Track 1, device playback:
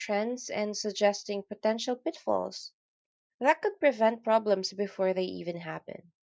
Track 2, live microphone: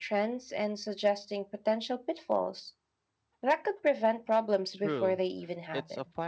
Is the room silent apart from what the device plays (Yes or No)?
No